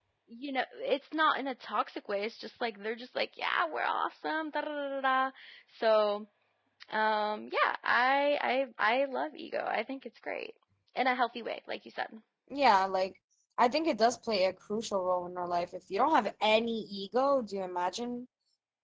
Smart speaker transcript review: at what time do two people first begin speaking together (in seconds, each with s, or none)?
none